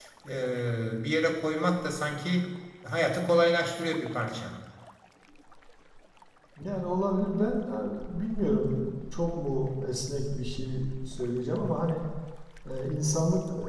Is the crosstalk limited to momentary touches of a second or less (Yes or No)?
Yes